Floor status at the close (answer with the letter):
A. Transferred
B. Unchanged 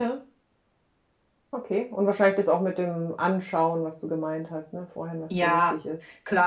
A